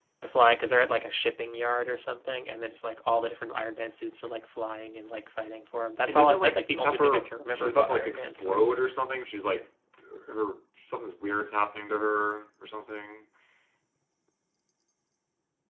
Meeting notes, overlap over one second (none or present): present